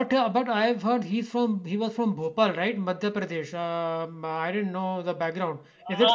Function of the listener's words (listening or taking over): taking over